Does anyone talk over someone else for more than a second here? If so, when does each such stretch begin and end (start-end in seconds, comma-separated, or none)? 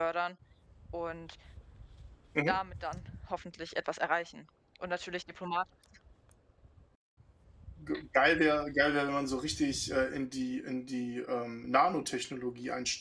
none